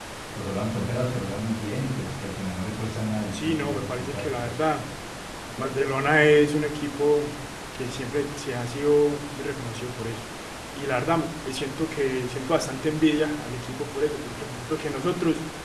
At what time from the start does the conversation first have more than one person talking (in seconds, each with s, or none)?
3.3 s